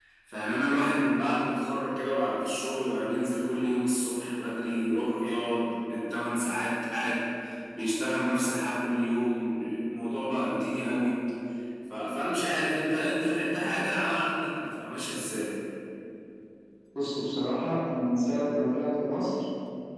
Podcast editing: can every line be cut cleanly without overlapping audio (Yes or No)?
Yes